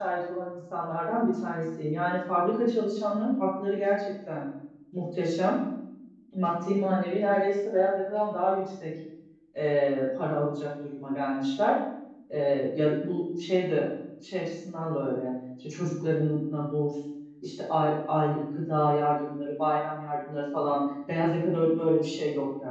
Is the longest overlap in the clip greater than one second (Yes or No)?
No